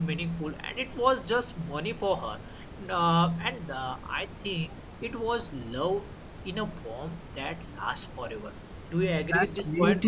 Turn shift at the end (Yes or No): Yes